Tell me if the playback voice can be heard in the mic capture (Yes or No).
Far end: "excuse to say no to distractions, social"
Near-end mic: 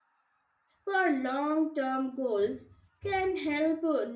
No